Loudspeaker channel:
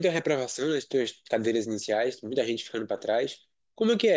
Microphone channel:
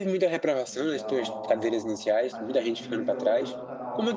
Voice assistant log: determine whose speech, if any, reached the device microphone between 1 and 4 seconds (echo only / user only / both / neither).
both